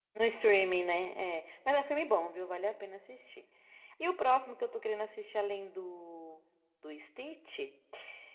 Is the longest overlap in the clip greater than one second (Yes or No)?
No